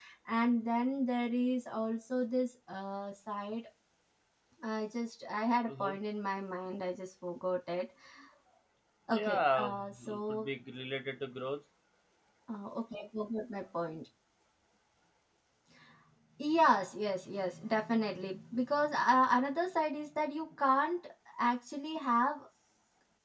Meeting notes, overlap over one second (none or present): present